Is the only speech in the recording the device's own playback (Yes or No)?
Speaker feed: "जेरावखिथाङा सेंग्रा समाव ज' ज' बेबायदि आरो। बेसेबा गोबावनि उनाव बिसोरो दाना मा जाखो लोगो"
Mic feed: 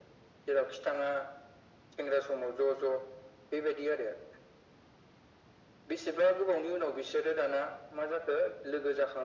Yes